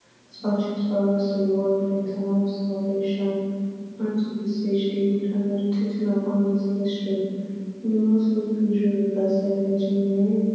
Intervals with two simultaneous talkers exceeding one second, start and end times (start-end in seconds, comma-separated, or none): none